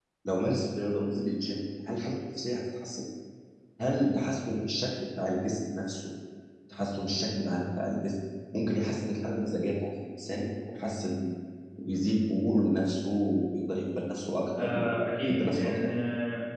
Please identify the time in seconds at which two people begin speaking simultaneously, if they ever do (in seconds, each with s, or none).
14.6 s